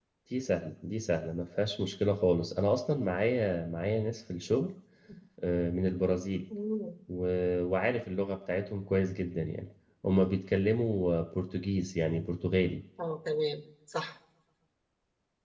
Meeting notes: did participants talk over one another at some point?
No

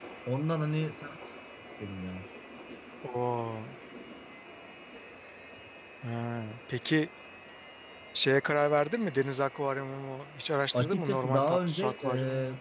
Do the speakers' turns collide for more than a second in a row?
Yes, from 10.7 s

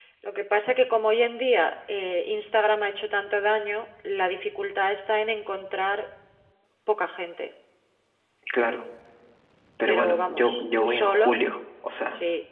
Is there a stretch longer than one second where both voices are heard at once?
Yes, from 9.9 s

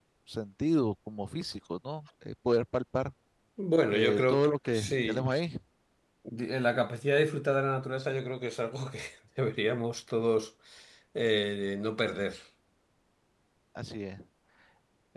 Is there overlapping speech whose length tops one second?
Yes, from 3.9 s

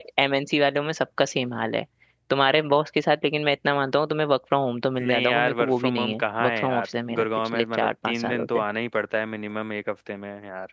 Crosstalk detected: Yes, from 5.0 s

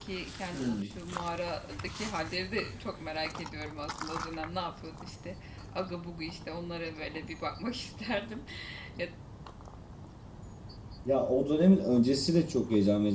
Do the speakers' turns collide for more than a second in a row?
No

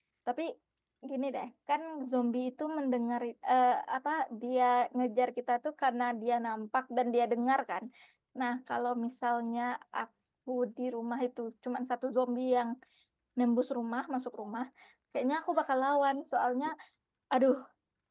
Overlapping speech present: No

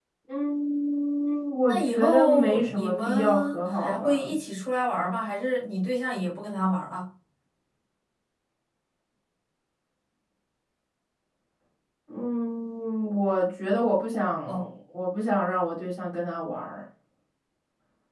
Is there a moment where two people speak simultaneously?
Yes, from 1.7 s

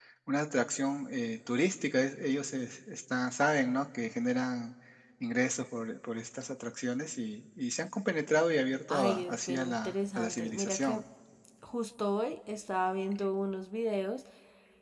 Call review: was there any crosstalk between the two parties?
Yes, from 8.9 s

